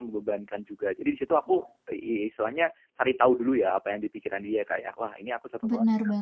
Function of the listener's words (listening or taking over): taking over